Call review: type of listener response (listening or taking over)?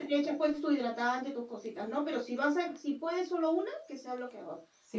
taking over